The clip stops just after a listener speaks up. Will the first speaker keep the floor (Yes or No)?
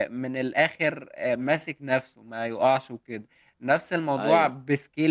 Yes